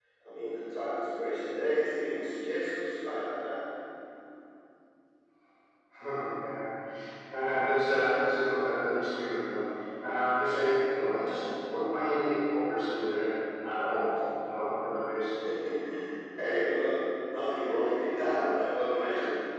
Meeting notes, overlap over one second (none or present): none